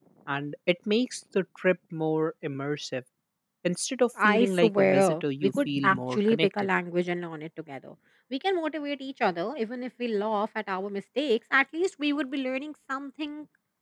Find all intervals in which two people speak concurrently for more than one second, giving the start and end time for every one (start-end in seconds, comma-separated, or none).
4.2-6.7